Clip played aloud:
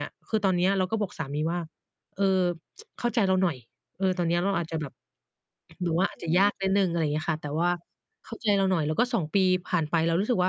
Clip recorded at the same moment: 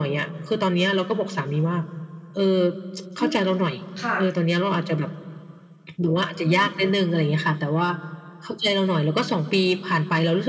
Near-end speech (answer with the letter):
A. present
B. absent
A